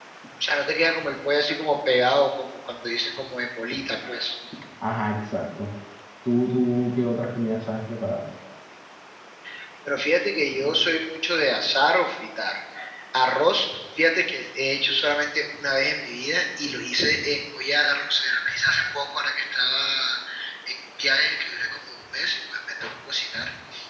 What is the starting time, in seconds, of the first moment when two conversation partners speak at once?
none

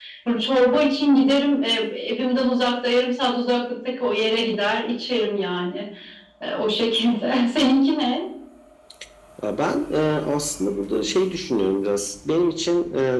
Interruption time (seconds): none

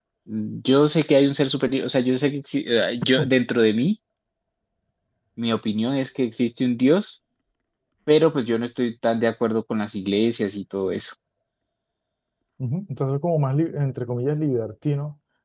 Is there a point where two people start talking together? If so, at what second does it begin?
none

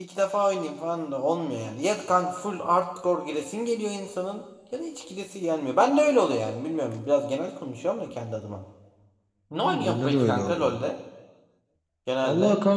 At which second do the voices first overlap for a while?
9.5 s

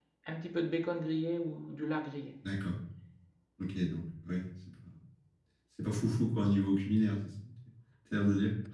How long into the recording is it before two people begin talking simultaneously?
none

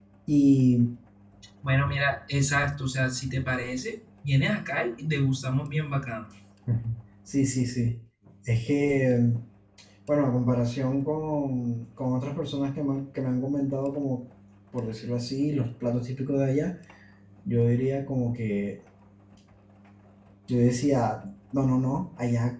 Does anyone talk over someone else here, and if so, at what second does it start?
none

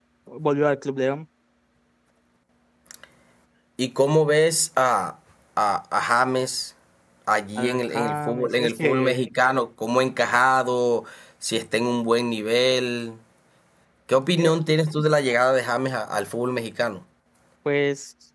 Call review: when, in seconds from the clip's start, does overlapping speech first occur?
7.6 s

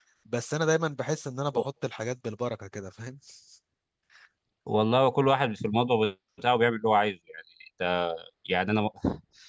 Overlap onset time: none

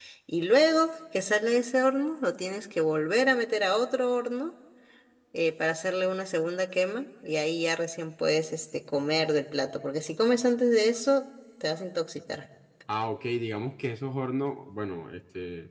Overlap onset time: none

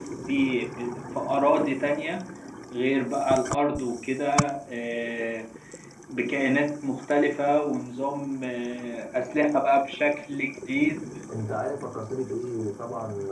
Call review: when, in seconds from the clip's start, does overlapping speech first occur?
none

